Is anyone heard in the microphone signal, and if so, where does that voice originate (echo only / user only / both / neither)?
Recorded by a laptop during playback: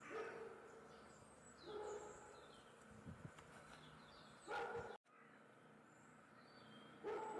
neither